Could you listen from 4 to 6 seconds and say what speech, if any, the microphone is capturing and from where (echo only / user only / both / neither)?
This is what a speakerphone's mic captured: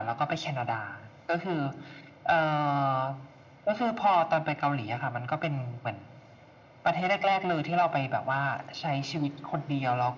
echo only